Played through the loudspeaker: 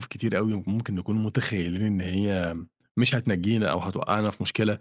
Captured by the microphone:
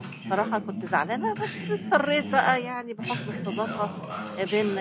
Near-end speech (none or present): present